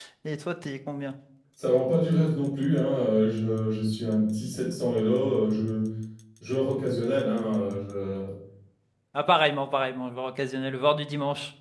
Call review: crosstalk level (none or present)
none